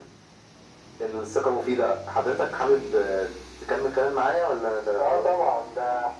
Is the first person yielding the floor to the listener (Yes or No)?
Yes